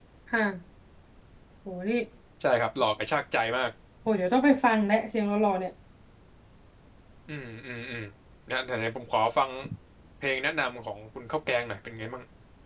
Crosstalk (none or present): none